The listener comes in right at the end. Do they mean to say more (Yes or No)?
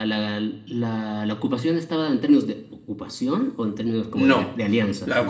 Yes